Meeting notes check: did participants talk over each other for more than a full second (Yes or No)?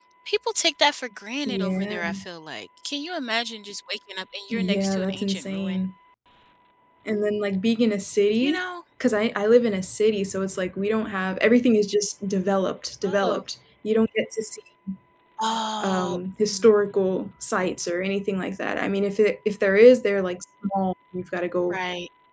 Yes